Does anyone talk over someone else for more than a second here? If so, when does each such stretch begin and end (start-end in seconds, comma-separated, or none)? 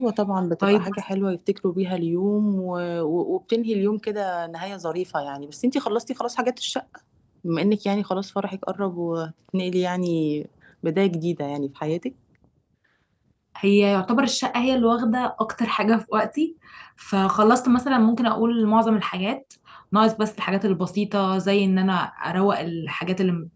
none